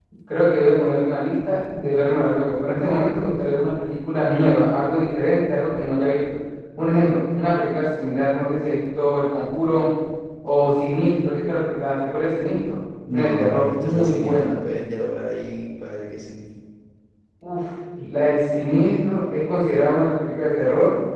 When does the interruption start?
13.1 s

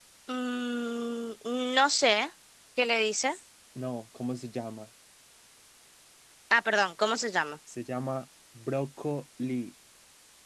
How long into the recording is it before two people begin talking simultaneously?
none

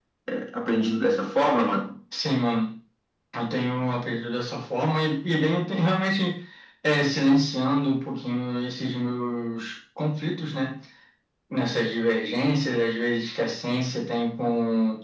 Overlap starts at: none

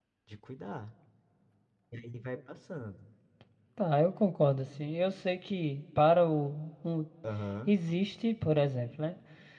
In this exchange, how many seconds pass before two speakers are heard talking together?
none

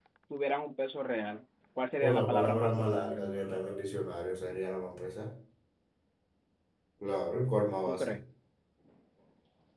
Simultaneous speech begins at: 2.0 s

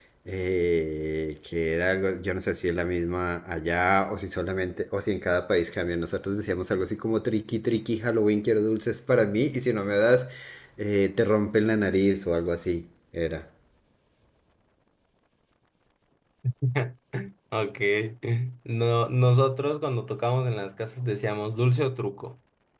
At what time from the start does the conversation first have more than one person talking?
none

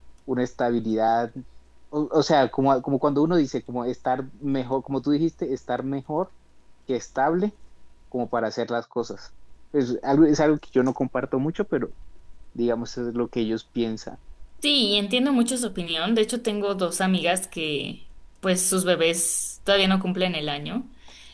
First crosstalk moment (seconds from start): none

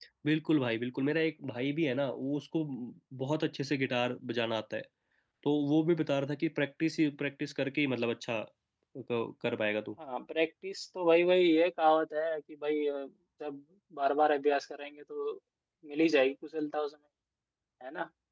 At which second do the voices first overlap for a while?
none

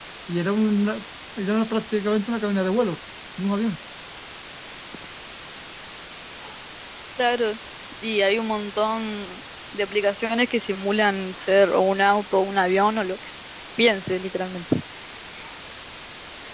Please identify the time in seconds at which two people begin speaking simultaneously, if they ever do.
none

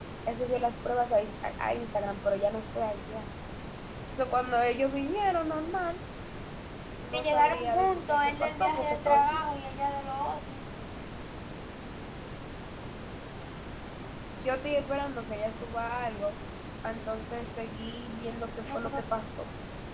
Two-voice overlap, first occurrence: 7.1 s

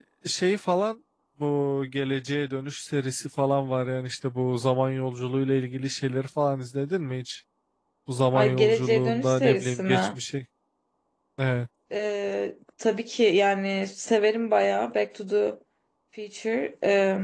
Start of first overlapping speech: 8.3 s

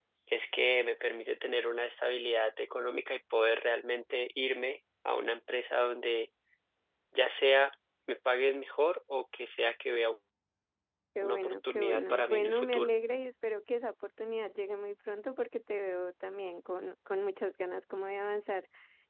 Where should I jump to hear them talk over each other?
11.2 s

